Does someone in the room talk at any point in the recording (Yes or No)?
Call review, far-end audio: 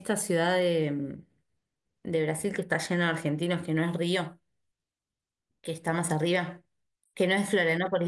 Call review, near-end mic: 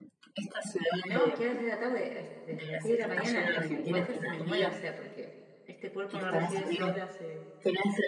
Yes